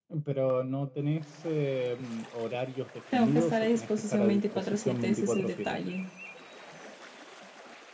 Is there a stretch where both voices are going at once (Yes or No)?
Yes